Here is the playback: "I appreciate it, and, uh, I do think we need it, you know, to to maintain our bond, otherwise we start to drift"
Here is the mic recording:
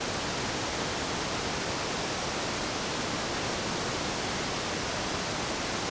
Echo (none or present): none